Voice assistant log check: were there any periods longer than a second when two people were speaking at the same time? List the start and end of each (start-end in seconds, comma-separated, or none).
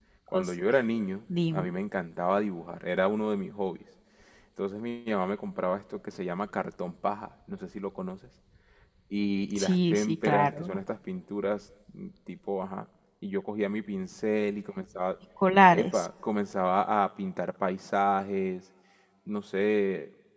9.6-10.8